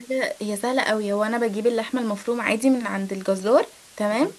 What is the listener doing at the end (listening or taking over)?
listening